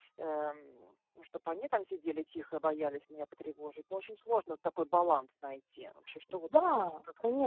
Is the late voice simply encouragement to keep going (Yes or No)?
No